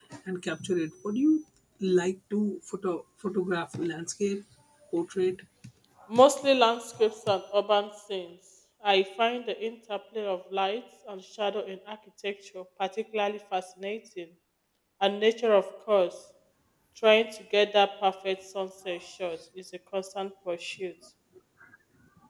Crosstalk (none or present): none